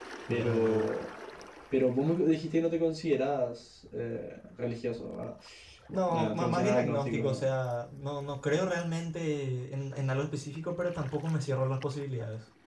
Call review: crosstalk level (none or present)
present